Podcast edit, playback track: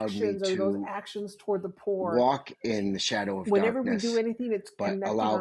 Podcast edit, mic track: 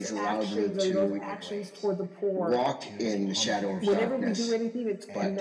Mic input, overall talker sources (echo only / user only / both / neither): both